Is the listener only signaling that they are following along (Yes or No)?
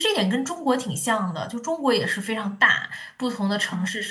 Yes